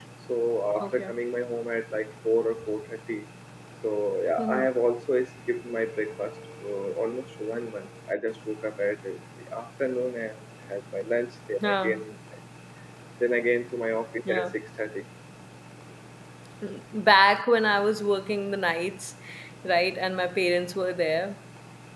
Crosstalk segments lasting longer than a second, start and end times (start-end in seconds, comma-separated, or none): none